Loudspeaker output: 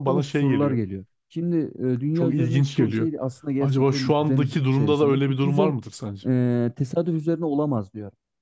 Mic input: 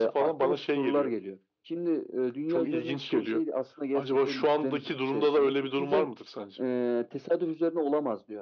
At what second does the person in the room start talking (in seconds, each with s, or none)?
none